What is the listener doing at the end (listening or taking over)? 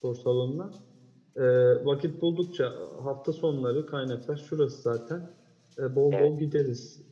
listening